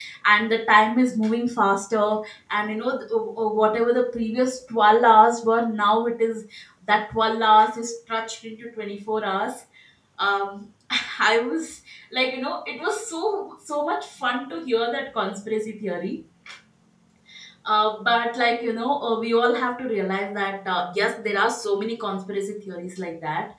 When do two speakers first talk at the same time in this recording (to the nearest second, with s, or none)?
none